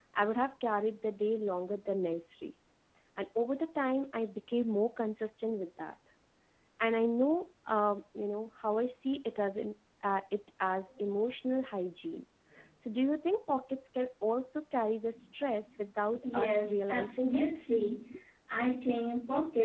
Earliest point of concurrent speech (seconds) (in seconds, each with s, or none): 16.2 s